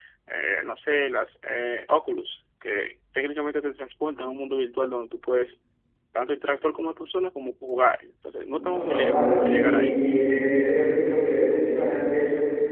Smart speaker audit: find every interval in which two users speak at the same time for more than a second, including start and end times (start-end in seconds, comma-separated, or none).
8.5-9.9